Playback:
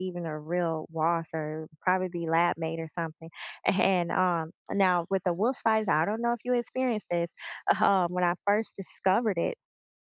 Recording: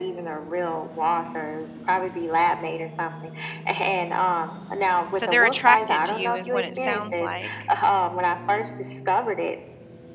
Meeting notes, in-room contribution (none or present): present